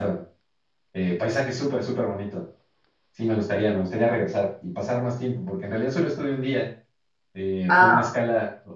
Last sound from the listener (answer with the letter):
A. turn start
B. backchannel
B